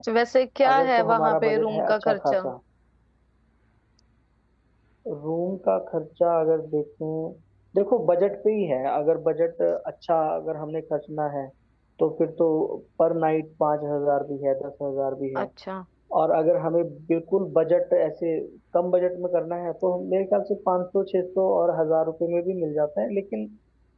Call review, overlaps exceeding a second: present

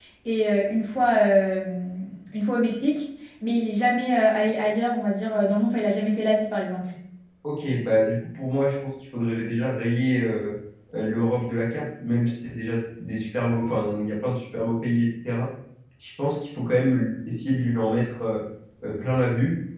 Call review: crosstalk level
none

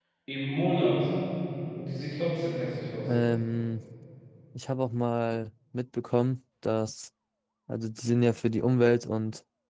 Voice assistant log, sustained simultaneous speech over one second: none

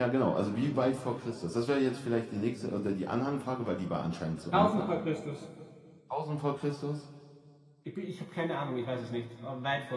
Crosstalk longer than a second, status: none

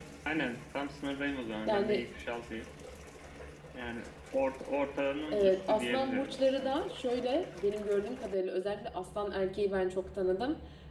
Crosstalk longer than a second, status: present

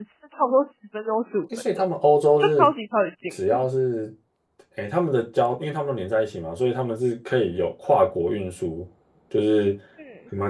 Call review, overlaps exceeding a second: none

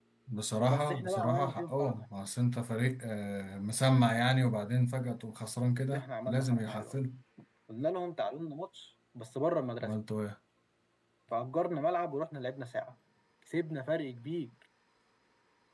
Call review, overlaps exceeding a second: present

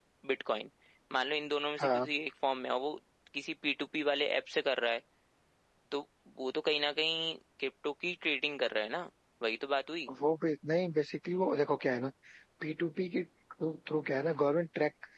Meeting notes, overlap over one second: none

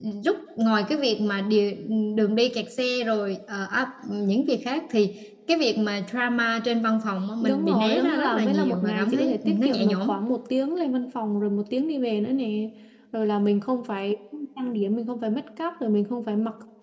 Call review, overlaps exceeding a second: present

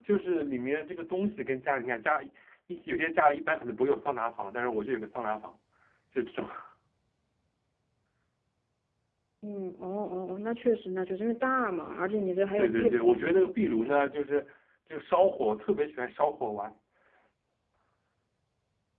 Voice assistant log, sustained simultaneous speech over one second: present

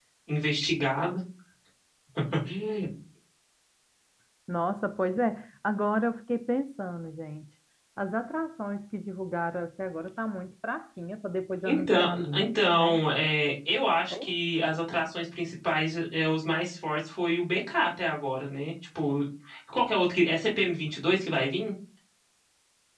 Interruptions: present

